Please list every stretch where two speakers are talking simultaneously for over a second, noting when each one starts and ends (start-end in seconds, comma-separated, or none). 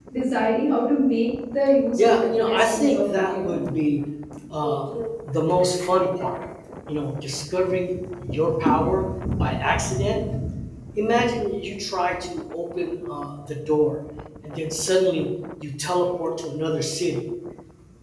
2.0-3.6